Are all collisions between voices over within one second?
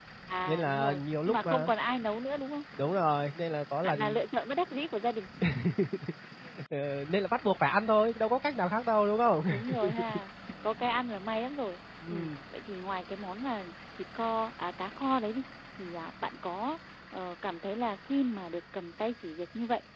No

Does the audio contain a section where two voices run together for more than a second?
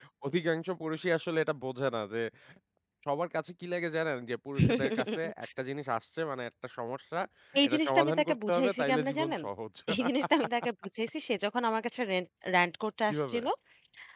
Yes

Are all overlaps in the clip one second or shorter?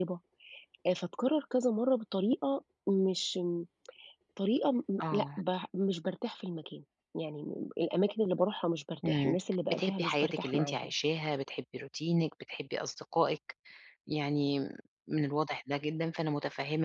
No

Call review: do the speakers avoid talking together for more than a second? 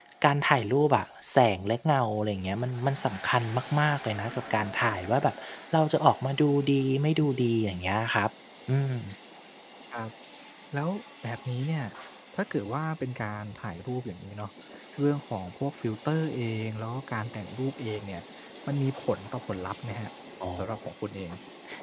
Yes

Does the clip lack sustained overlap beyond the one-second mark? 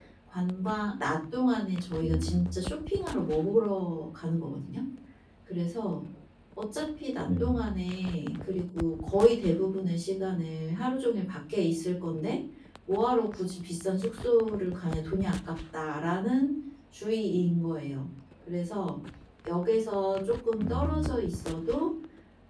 Yes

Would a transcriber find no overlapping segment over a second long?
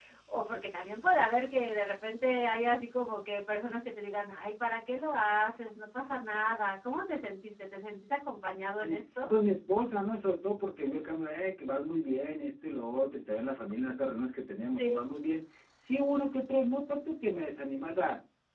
Yes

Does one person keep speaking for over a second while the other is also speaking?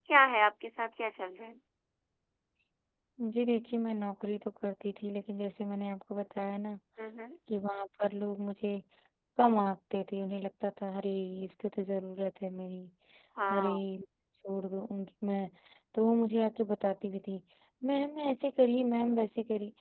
No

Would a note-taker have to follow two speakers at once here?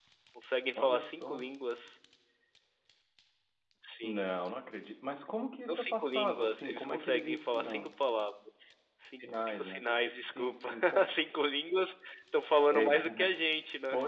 Yes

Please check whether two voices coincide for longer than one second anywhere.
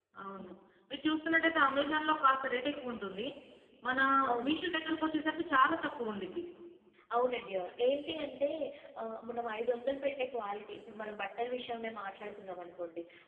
No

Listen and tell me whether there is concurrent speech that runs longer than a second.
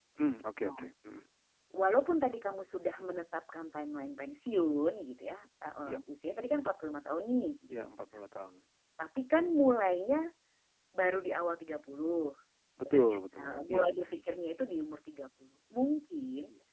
Yes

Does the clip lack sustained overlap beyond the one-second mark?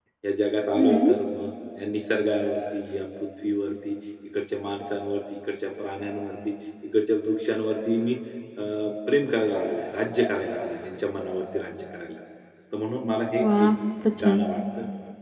Yes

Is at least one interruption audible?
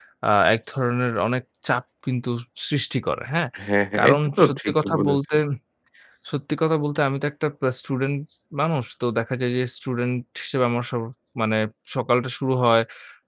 Yes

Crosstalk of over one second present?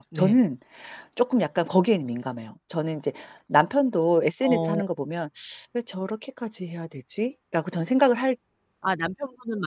No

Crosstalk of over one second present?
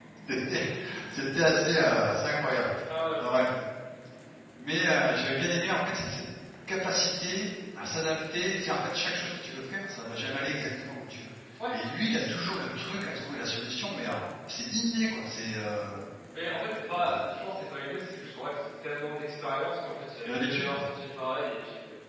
No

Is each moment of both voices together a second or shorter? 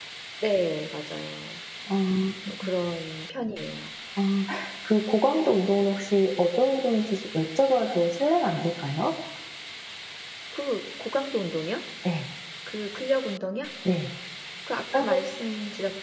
Yes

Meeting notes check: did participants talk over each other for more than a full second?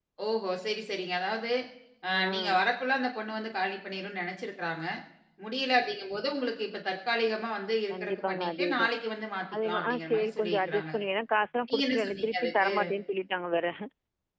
Yes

